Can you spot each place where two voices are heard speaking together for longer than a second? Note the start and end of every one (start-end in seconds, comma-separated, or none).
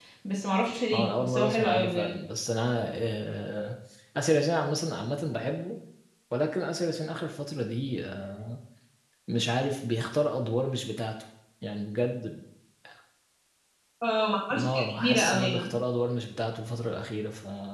0.9-2.2, 14.5-15.8